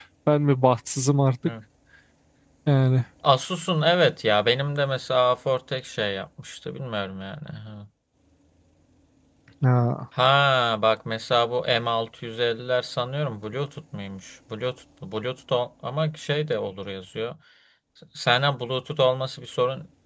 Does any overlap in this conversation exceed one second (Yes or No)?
No